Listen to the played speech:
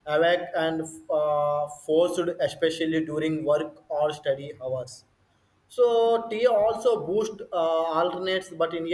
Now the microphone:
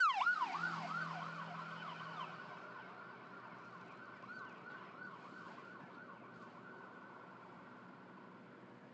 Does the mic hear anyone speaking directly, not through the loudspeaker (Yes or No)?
No